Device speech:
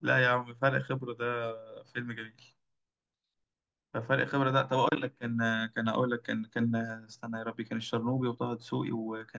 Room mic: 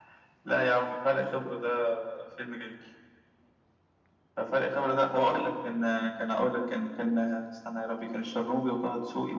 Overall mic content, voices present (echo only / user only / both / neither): echo only